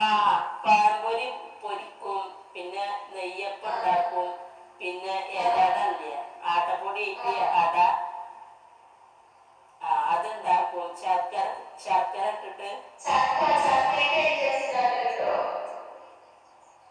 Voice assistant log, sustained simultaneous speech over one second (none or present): none